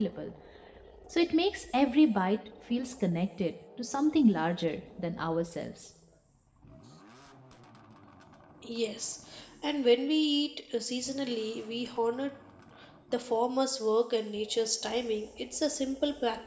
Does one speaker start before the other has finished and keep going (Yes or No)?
No